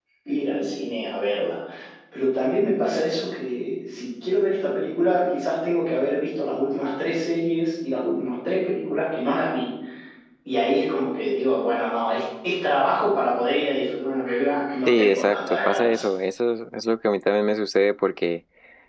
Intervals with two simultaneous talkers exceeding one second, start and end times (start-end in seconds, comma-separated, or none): 14.9-16.1